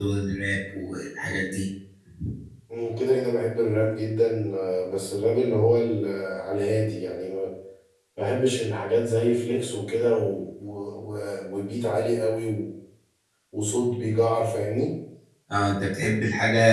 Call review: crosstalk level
none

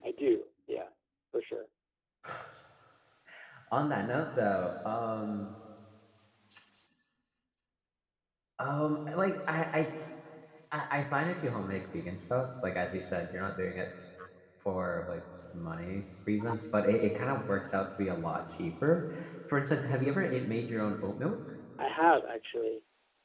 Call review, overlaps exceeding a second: none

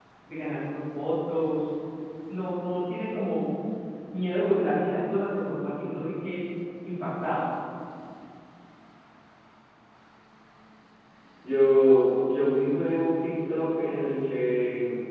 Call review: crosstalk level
none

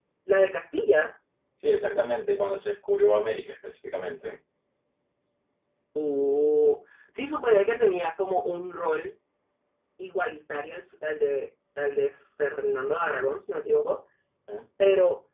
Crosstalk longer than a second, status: none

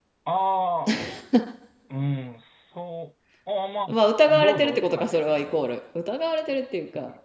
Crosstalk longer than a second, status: present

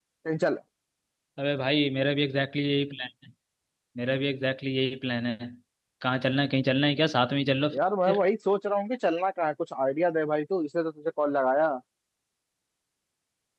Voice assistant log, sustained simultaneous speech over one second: none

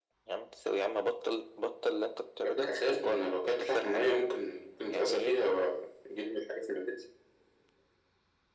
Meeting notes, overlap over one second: present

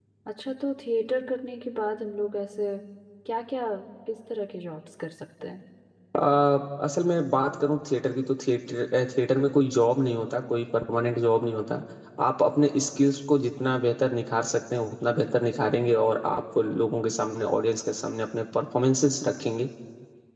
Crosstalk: none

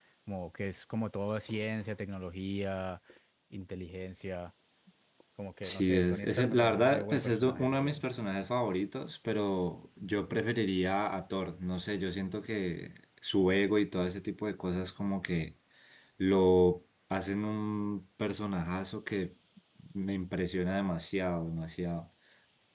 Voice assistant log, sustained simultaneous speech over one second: present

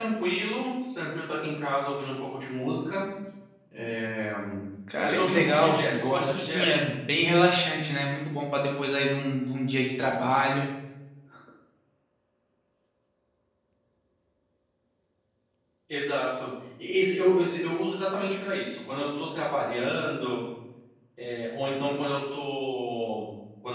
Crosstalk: present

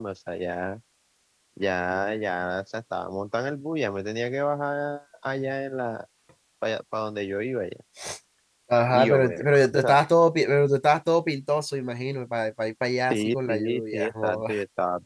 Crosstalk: present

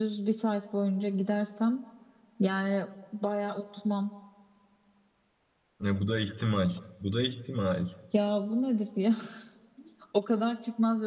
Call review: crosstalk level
none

